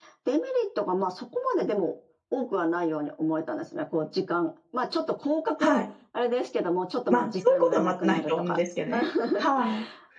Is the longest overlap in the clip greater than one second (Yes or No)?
Yes